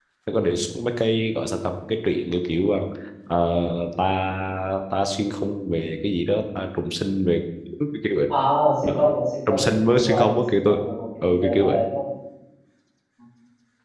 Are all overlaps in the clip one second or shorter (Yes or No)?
No